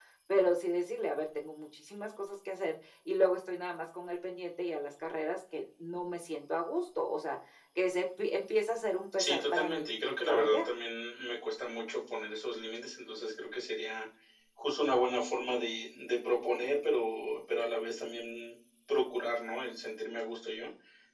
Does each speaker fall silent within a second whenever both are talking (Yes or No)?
No